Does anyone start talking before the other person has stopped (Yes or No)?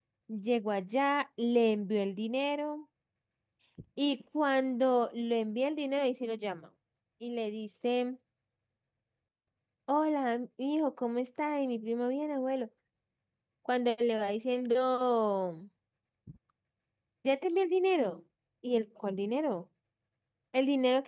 No